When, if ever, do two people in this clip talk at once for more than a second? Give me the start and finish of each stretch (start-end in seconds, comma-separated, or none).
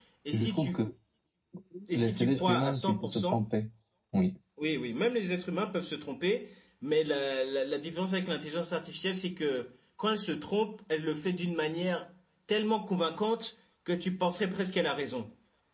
1.9-3.4